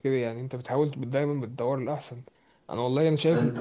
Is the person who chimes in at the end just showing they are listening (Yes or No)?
Yes